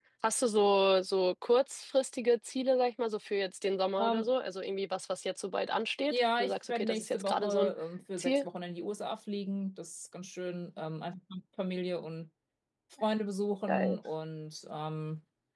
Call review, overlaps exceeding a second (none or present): present